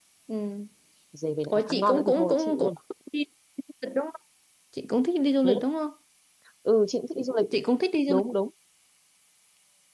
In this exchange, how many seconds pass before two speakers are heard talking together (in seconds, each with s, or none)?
1.5 s